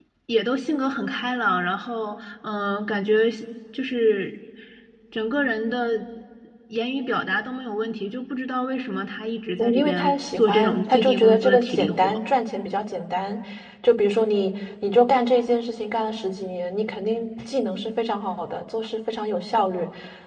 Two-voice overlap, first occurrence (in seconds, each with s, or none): 9.6 s